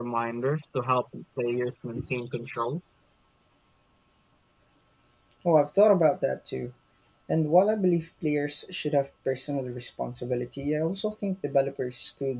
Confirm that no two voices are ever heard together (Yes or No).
Yes